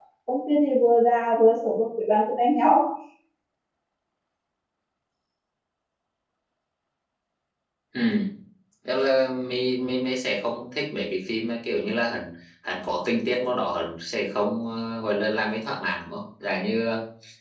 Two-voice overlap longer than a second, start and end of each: none

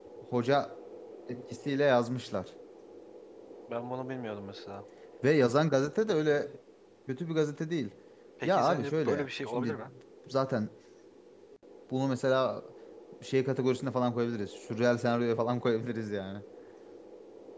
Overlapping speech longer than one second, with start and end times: 8.4-9.8

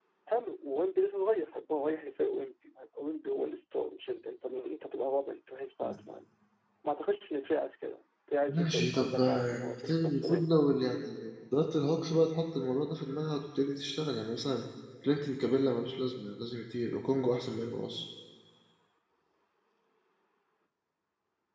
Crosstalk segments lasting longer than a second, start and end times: 8.5-10.6

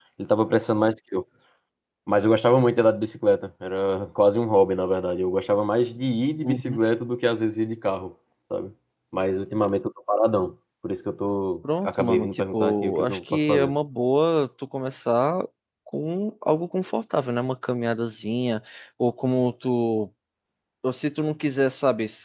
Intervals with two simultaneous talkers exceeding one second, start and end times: 11.8-13.7

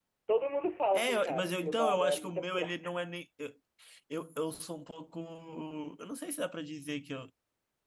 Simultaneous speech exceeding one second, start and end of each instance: 0.9-2.9

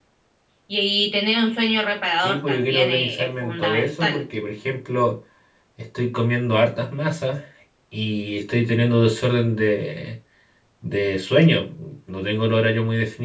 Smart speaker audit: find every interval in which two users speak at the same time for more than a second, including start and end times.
2.2-4.2

